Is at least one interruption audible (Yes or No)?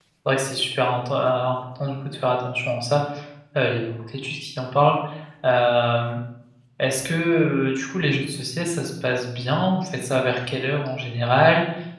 No